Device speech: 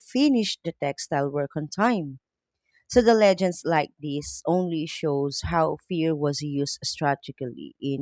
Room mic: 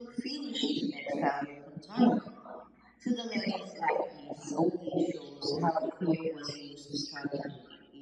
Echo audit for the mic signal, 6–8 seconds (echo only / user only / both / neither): echo only